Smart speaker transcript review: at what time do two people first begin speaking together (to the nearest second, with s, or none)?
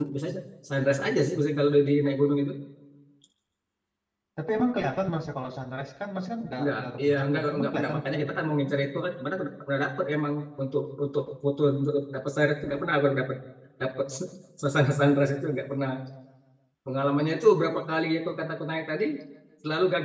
7 s